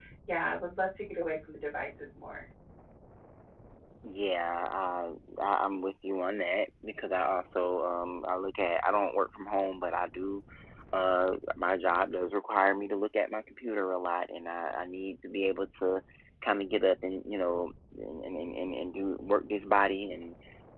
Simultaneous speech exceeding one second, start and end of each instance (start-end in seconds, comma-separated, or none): none